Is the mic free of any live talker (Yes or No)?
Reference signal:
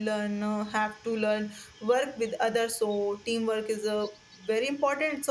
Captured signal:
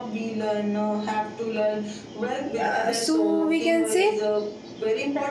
No